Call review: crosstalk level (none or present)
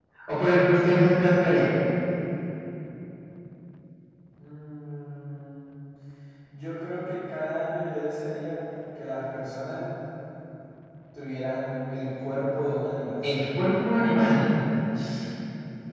none